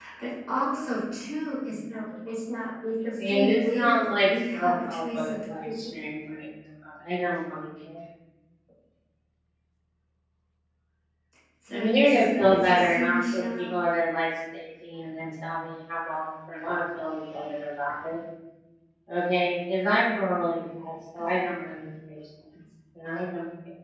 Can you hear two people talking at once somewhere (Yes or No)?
Yes